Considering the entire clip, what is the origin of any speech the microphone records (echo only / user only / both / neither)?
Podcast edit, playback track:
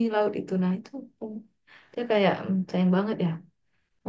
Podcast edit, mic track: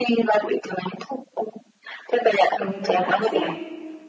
both